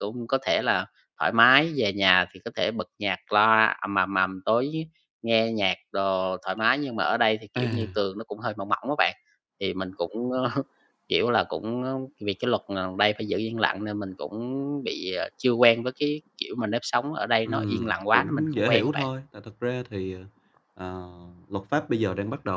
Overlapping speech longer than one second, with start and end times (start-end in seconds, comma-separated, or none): 17.4-19.1